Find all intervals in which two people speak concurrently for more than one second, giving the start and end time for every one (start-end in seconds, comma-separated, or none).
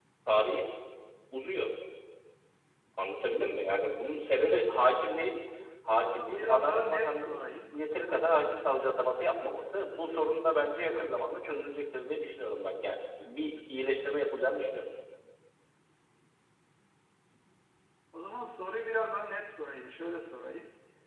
5.9-7.8